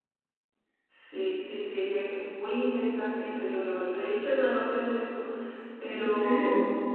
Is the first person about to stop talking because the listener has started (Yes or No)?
No